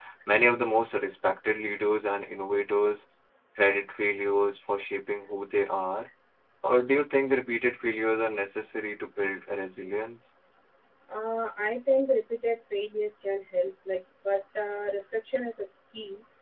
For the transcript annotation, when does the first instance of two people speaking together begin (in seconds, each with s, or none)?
none